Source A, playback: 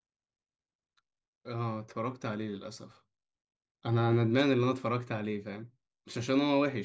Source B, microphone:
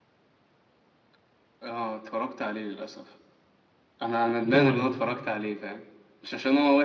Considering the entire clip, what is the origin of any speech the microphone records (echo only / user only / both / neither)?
both